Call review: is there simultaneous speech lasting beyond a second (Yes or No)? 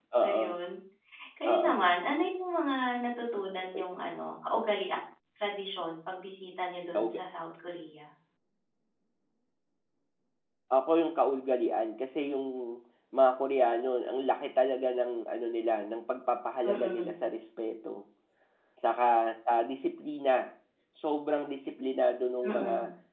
No